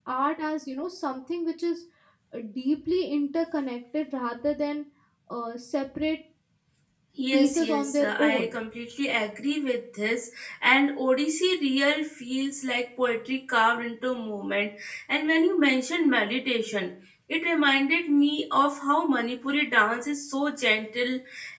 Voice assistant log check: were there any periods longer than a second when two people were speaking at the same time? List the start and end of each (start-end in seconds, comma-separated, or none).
7.3-8.5